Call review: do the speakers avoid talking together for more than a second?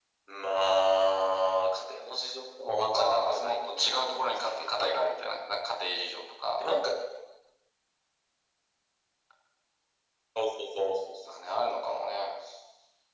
No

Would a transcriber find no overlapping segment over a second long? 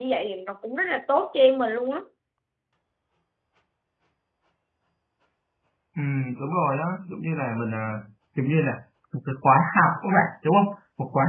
Yes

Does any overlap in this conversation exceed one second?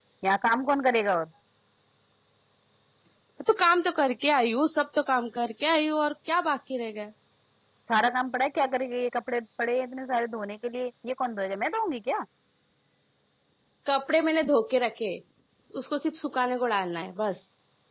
No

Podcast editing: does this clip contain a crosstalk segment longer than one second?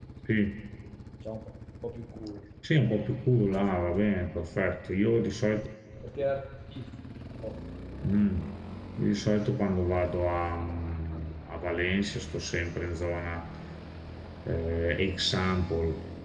No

